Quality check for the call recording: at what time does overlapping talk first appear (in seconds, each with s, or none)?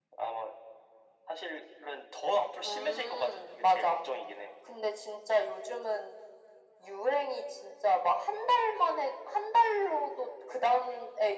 2.6 s